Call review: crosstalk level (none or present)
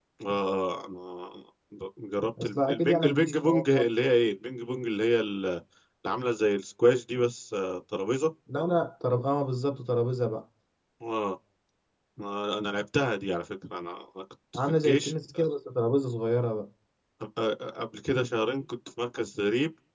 present